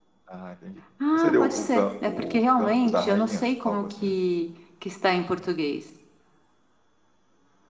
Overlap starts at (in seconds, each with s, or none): 1.1 s